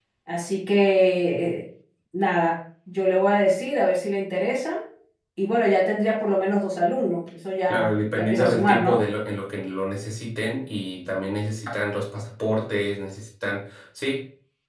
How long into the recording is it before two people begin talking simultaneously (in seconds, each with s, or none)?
7.7 s